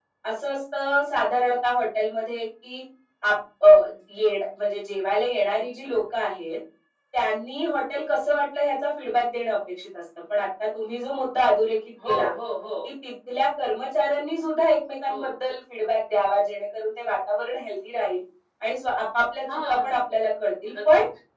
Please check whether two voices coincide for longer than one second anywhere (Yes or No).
No